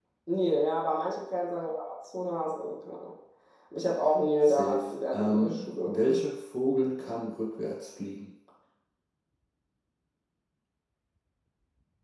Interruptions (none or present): present